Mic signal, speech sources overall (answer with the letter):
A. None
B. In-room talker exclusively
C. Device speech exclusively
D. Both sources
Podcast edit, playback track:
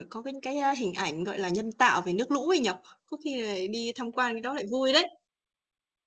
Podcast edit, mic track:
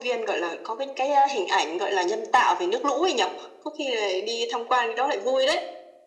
C